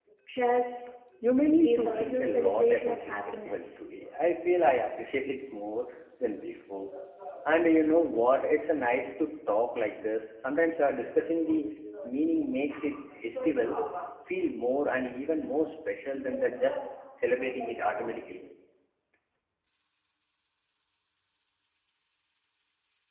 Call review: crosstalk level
present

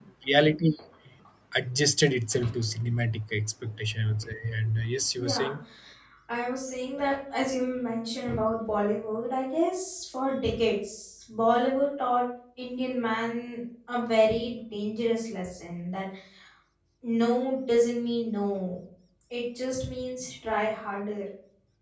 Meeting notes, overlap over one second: none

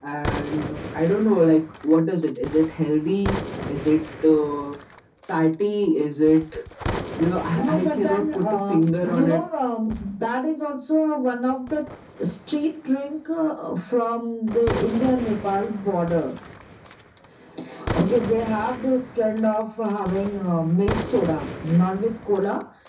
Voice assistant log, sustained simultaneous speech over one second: present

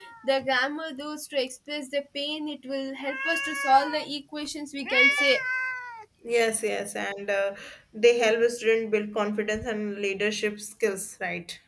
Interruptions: none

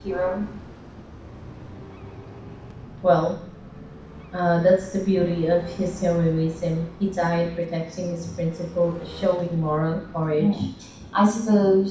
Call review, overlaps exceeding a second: none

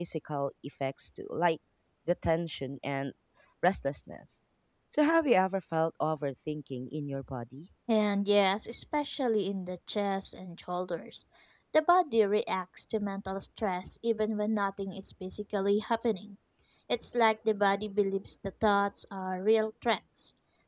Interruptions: none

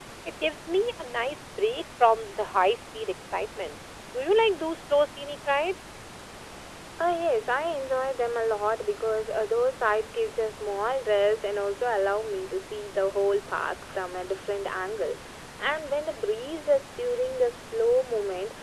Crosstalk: none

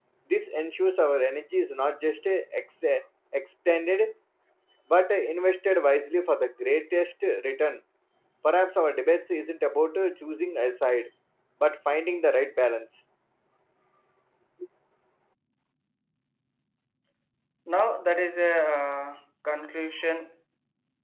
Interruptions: none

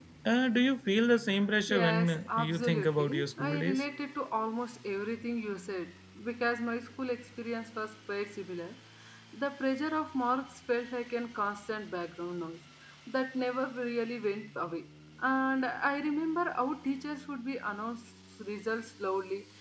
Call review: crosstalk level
present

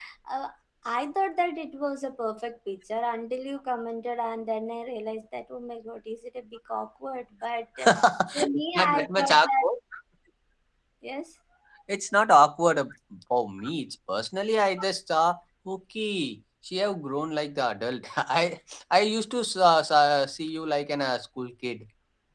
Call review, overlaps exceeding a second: present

